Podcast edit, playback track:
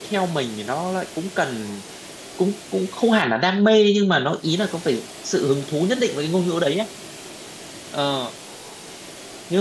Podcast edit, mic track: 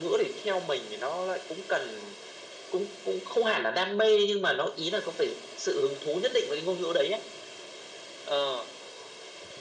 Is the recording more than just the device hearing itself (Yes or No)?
No